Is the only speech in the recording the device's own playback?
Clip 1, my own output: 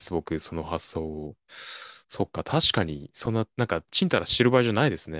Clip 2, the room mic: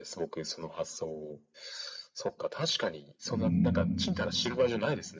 No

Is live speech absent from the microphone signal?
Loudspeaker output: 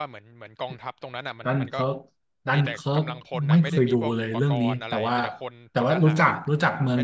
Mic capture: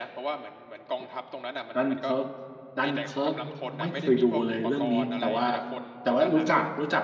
Yes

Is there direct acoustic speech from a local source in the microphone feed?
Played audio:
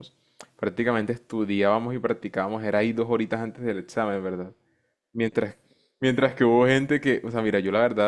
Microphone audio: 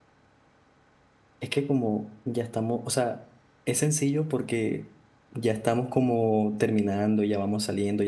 Yes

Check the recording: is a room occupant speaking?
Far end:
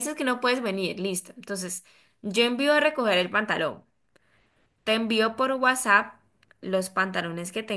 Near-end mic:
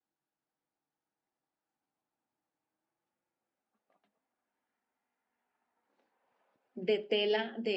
Yes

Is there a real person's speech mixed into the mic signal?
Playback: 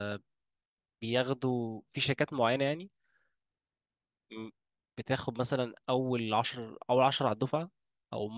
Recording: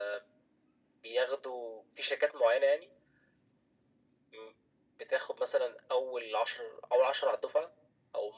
No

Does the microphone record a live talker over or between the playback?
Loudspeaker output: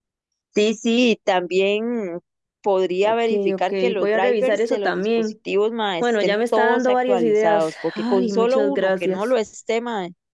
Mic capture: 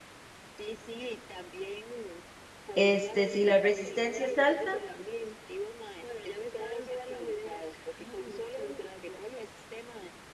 Yes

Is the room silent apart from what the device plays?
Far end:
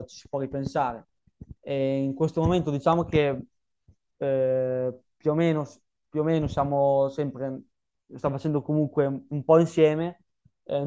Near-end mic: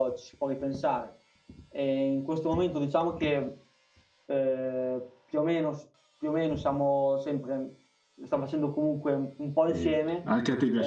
No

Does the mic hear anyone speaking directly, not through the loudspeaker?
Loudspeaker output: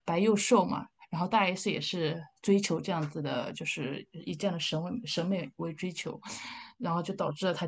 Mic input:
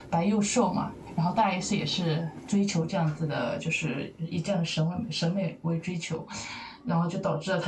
No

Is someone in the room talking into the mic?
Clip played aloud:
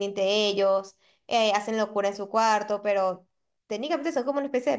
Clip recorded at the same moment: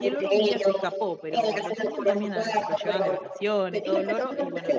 Yes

